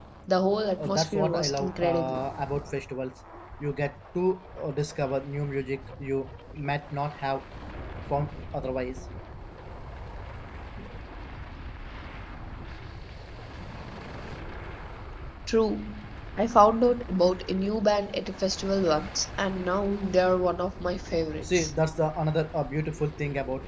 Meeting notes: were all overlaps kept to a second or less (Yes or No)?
No